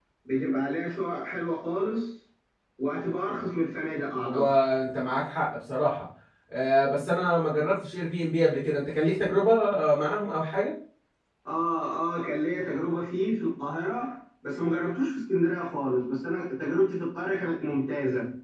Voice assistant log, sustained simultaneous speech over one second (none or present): none